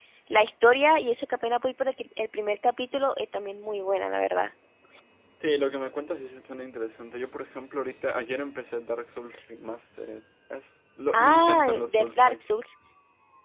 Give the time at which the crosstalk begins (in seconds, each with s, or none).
11.1 s